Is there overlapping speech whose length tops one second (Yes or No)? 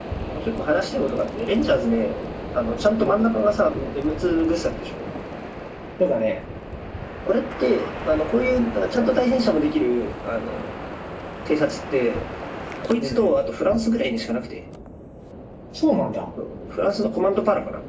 No